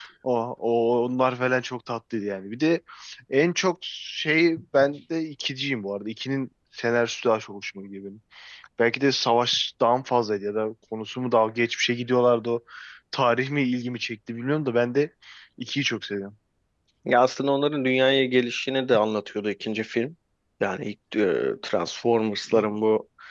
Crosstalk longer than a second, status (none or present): none